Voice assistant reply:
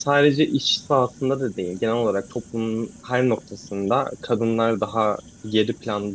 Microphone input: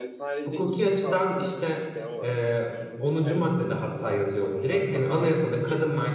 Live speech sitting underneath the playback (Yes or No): No